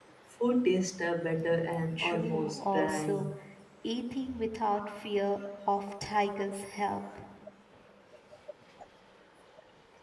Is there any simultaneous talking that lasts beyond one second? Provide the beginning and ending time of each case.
2.0-3.3

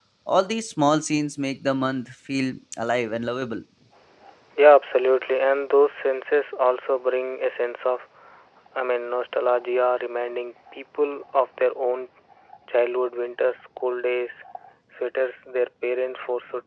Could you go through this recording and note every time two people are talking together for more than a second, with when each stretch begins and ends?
none

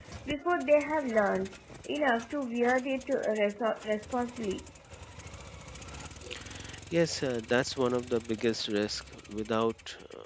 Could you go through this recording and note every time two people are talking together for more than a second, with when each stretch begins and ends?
none

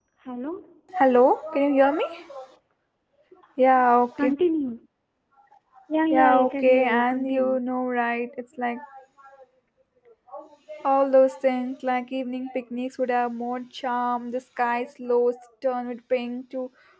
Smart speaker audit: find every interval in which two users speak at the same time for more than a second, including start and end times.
6.1-7.6

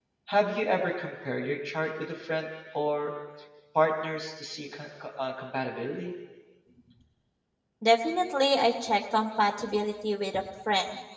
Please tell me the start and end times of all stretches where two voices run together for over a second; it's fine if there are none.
none

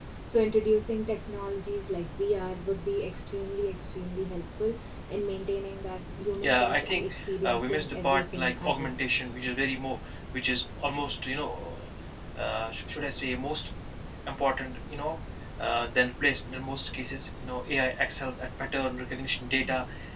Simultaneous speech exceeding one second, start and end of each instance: 6.4-9.0

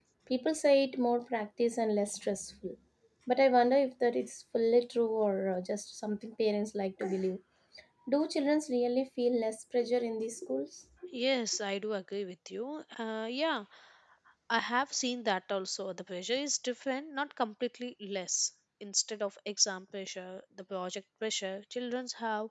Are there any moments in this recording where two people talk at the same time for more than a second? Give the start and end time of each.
none

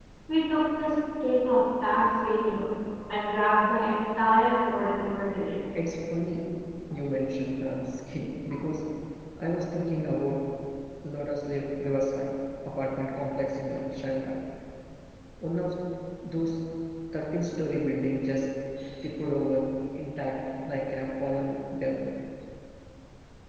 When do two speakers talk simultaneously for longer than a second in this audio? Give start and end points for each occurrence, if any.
none

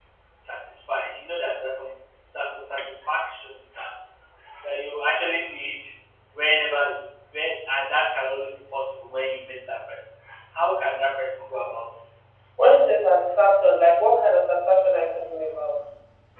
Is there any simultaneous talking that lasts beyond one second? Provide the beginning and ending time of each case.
none

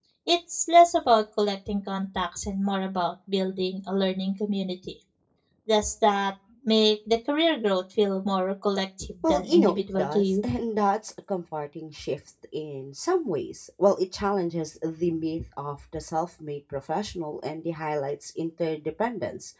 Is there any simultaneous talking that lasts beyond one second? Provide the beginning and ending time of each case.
9.2-10.5

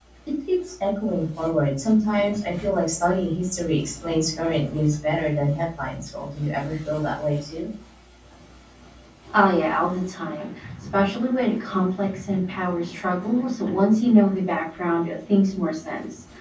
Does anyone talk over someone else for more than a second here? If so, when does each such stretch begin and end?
none

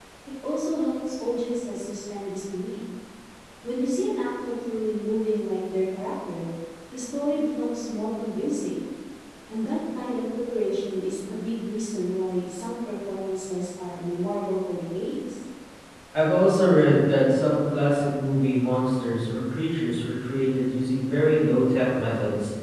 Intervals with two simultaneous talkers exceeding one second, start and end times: none

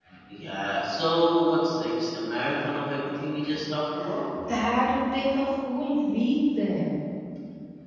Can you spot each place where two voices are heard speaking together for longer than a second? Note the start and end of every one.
none

